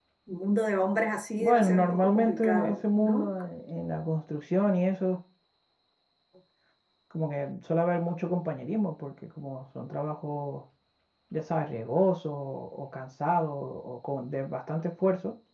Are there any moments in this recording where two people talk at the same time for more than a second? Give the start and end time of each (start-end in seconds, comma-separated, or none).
1.4-3.3